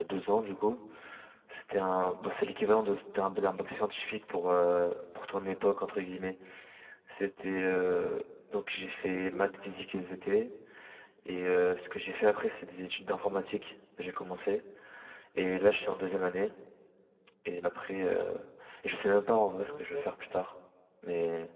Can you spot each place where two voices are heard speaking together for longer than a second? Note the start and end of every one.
none

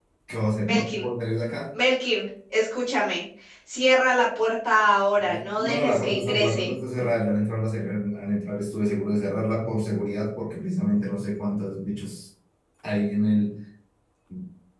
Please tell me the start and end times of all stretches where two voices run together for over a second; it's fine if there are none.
5.2-6.7

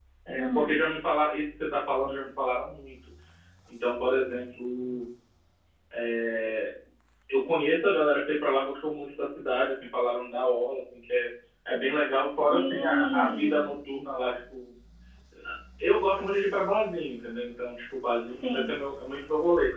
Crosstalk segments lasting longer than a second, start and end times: 12.5-13.7

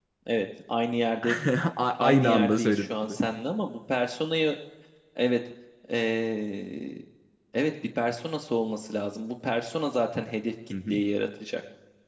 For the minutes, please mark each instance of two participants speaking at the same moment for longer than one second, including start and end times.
2.0-3.2

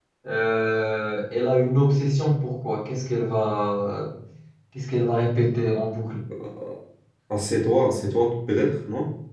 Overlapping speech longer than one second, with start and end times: none

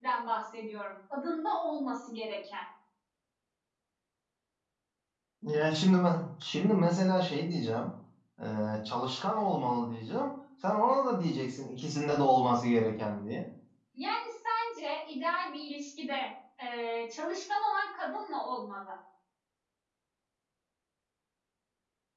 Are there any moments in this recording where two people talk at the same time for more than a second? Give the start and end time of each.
none

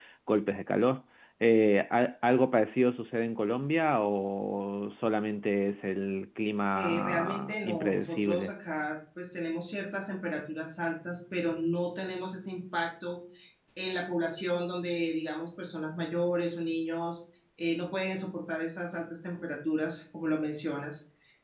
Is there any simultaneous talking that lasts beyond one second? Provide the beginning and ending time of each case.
6.7-8.5

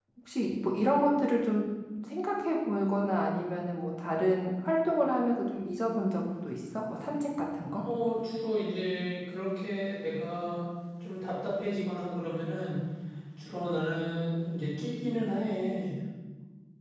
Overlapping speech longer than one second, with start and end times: none

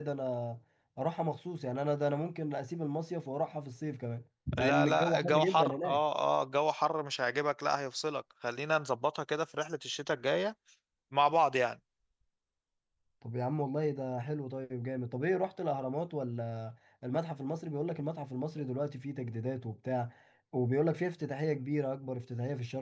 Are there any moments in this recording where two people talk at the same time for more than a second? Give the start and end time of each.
4.6-6.0

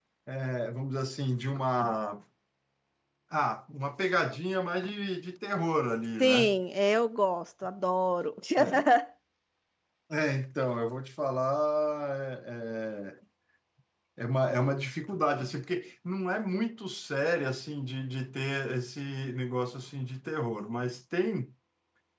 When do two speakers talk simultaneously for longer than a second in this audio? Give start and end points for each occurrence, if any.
none

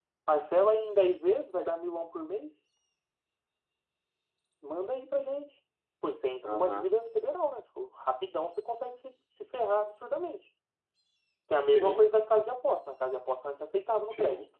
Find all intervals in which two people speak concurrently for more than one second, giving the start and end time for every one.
none

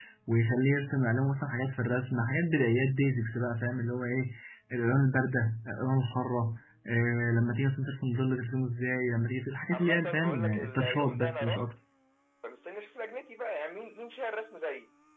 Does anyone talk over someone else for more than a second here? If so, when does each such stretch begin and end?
9.7-11.7

